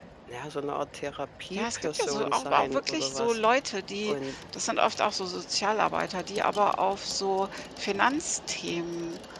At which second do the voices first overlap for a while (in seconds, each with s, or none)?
1.5 s